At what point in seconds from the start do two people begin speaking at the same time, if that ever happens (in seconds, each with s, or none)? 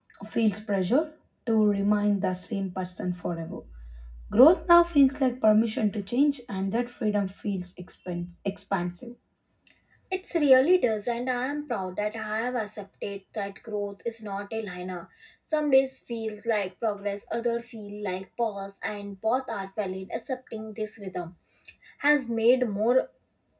none